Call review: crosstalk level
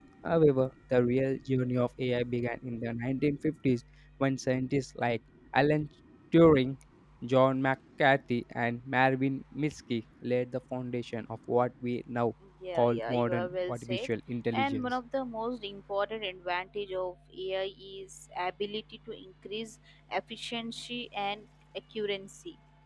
present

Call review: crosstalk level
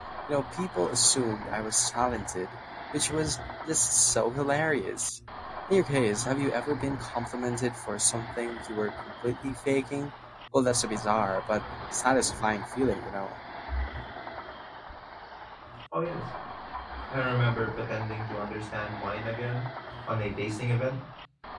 none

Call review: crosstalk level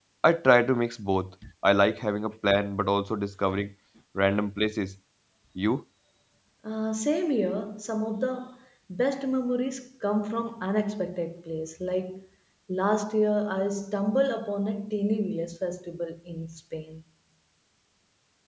none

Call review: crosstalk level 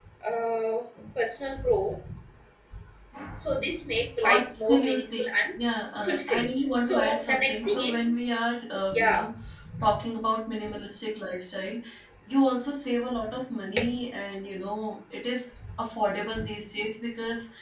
present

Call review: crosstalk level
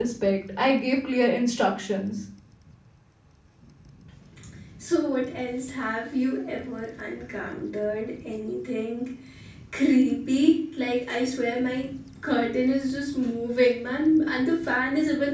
none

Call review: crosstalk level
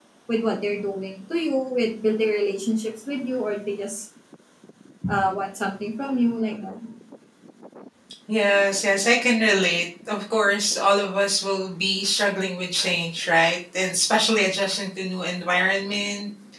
none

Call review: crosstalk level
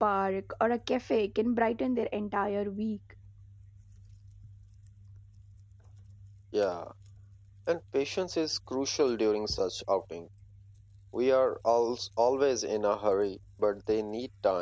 none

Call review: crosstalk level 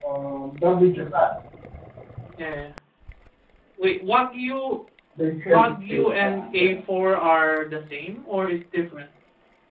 present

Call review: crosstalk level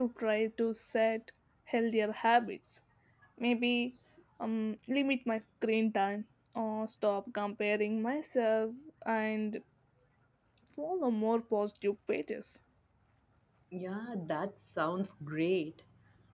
none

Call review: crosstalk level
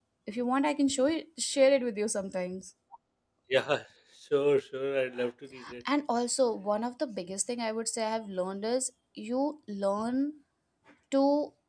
none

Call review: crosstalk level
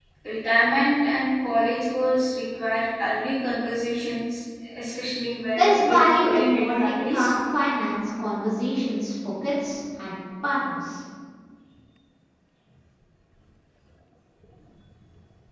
present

